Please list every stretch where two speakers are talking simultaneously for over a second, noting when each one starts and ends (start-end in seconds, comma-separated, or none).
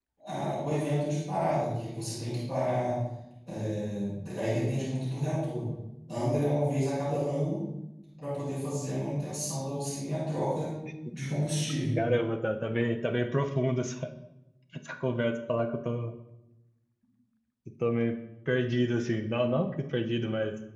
none